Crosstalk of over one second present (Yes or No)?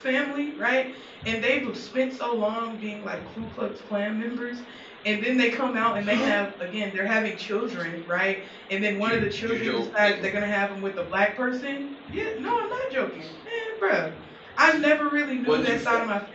Yes